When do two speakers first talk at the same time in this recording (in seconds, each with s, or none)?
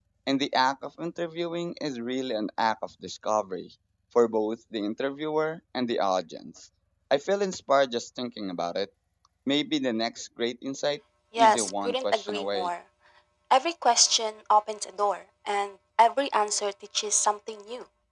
11.3 s